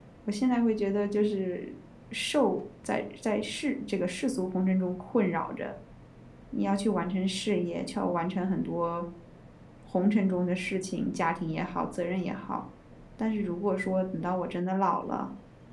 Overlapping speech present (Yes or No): No